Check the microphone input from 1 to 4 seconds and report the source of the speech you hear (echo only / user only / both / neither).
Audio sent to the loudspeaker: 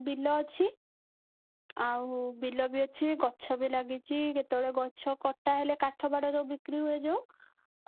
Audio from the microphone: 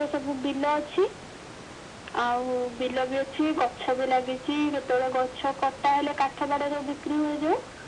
echo only